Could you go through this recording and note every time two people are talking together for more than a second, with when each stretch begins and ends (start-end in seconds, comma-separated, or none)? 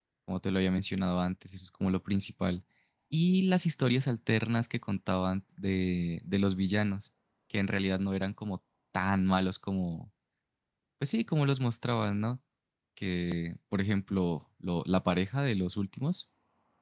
none